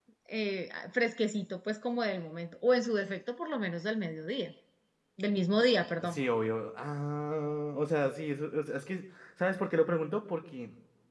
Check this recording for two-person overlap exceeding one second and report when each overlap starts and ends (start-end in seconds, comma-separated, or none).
none